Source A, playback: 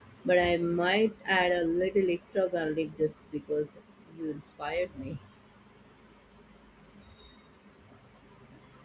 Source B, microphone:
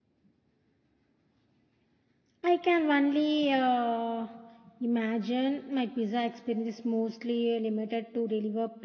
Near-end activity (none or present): present